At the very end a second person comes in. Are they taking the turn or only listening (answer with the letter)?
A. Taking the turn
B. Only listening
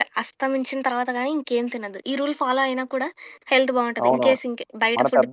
A